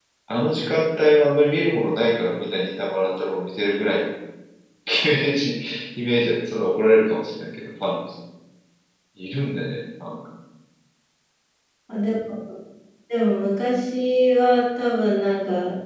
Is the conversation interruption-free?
Yes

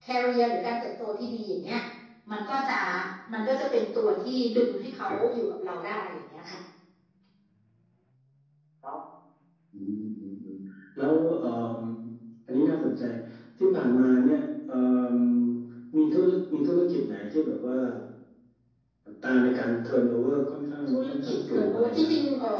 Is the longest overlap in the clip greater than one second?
Yes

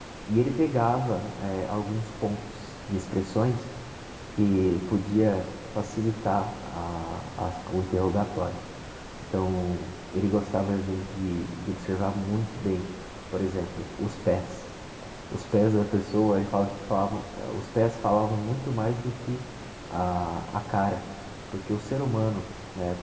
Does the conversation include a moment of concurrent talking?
No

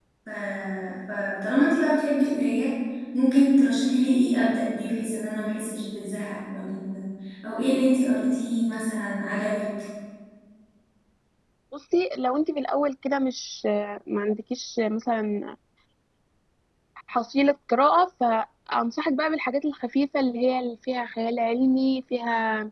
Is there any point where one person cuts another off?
No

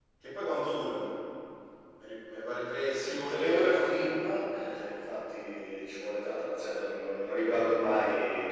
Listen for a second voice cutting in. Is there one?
Yes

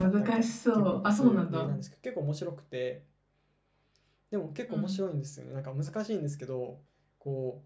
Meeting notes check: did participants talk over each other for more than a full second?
Yes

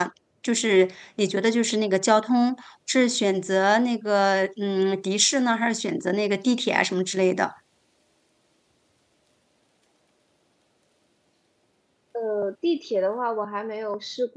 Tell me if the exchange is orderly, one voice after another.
Yes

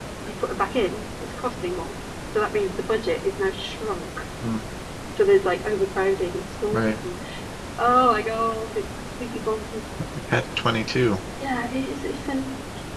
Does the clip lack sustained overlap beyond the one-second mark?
Yes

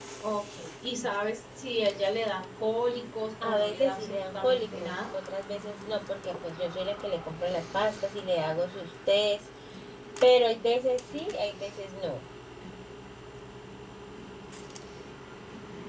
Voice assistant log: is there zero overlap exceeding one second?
No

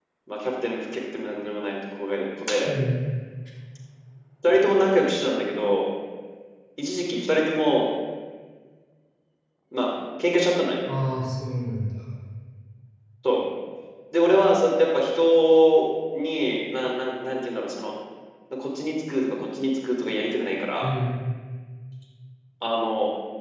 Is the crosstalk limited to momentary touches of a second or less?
Yes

